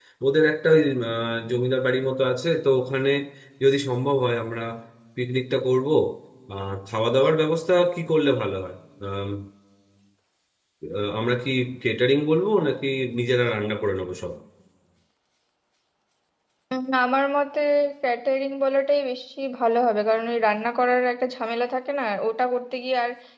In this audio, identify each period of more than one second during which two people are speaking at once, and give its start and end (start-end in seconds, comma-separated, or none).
none